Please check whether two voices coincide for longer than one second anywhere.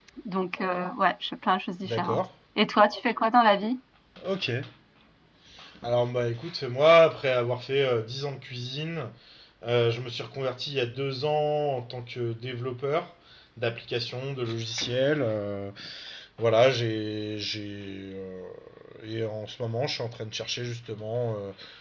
No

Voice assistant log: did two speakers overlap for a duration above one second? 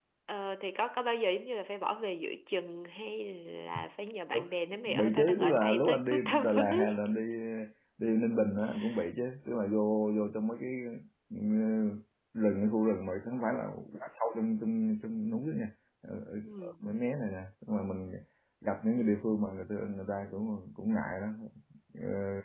Yes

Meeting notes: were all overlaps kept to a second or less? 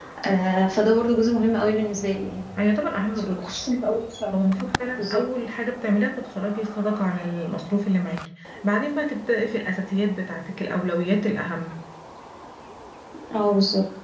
Yes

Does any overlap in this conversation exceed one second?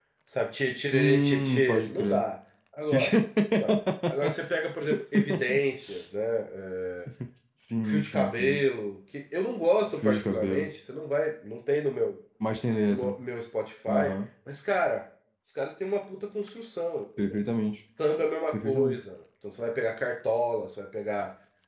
Yes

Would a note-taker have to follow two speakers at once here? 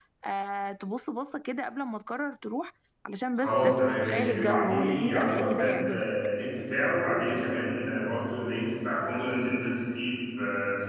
Yes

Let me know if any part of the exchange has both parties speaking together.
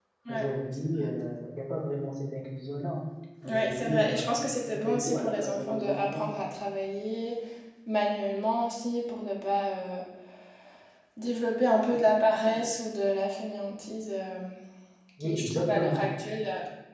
Yes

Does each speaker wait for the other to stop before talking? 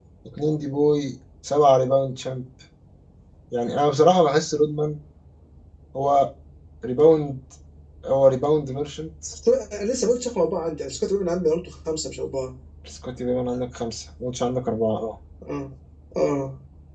Yes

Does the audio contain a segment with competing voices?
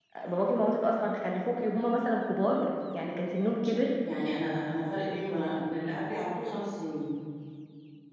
No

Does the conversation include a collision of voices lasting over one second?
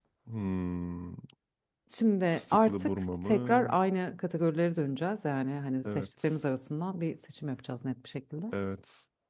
Yes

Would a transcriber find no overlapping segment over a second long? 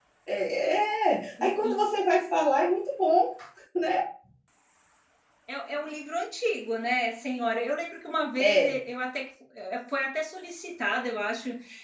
Yes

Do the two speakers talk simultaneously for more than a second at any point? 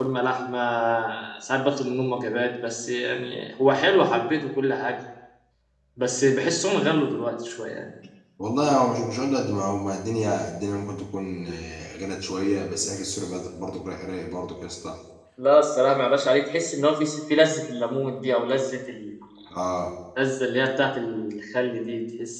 No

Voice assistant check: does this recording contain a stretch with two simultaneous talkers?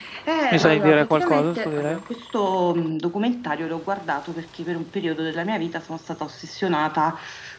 Yes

